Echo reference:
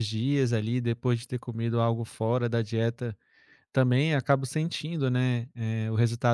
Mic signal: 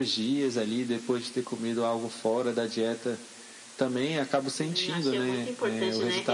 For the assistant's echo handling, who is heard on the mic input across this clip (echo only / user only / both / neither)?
both